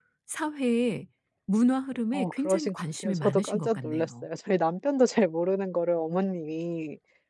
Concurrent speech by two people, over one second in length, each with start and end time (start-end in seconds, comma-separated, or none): 2.1-4.2